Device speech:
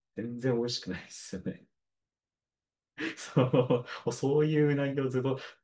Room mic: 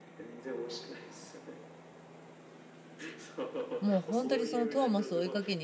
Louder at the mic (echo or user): user